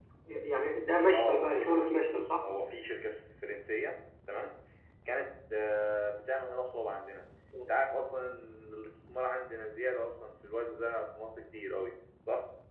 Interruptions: present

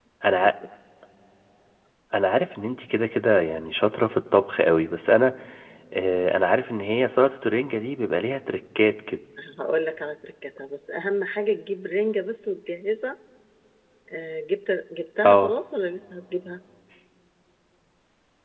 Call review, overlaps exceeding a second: none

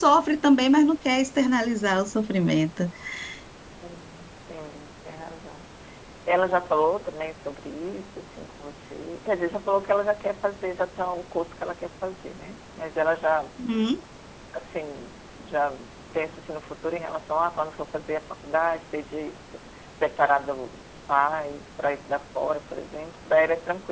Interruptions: none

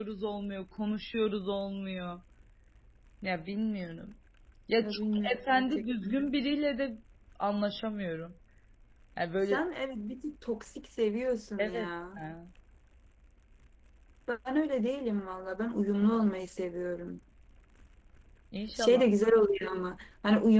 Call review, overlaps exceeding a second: present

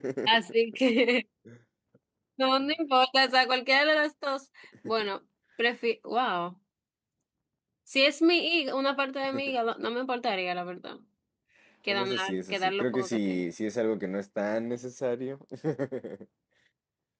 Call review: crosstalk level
present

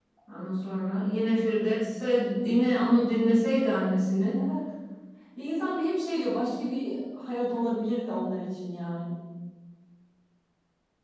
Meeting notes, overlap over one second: none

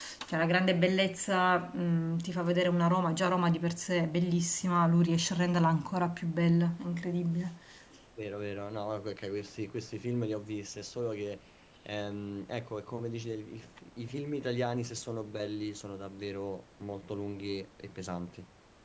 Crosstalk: none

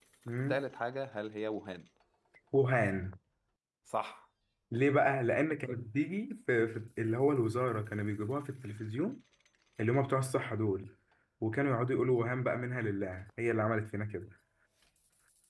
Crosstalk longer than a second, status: none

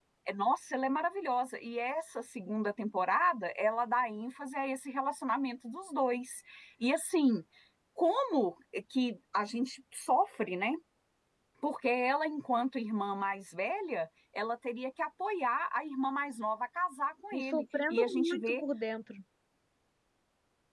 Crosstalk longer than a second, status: present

